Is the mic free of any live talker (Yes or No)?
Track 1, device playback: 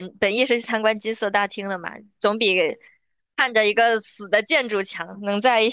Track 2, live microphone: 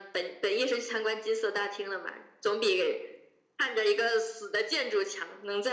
Yes